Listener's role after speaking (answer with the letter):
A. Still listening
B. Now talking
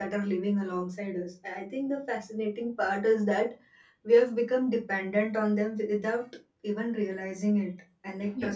A